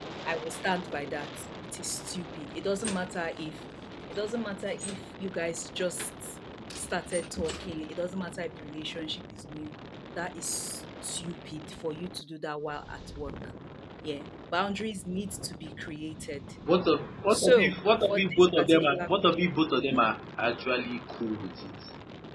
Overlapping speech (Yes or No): Yes